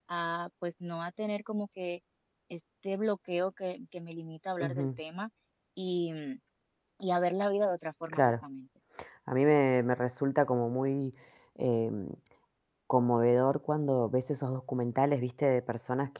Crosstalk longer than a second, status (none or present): none